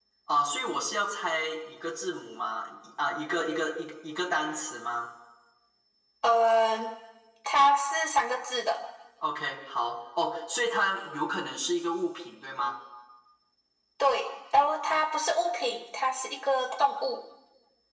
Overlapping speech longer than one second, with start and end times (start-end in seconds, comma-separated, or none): none